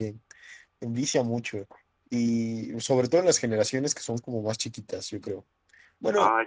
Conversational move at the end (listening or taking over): listening